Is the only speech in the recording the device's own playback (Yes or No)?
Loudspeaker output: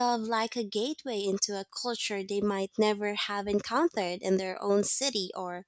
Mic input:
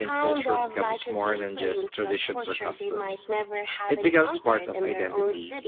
No